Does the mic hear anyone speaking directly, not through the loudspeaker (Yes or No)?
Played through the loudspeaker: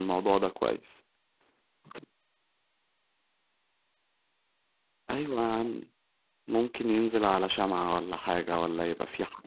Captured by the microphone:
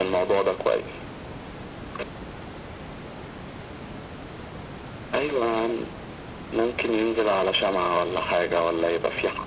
No